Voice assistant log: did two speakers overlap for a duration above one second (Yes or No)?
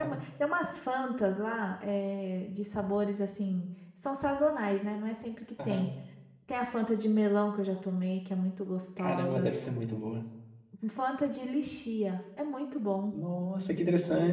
No